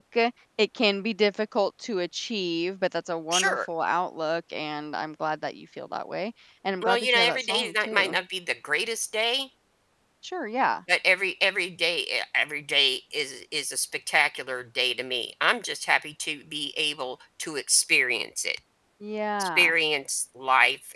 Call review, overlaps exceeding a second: present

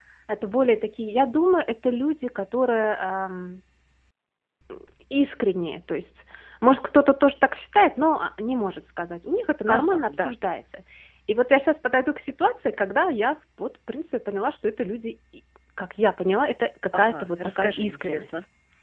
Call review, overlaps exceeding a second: present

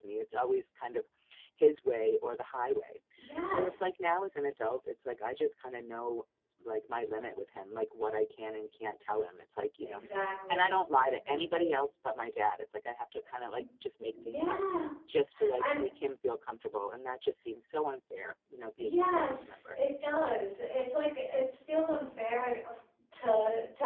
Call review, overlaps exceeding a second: present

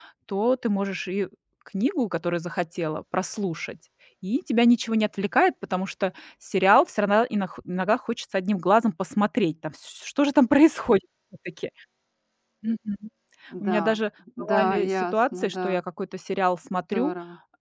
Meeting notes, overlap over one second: present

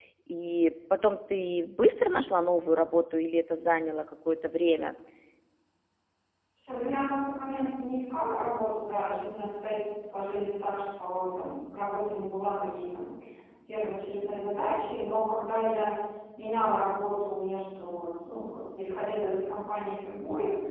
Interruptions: none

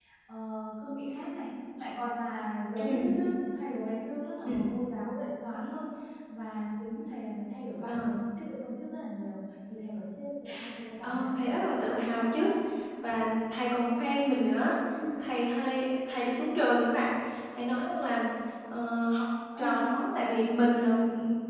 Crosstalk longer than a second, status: present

